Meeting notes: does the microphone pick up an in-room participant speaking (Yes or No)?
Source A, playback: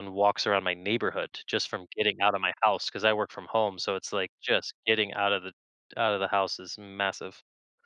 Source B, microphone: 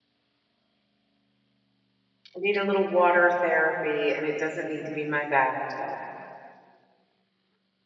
Yes